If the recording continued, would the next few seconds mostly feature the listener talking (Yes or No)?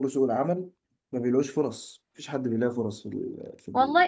Yes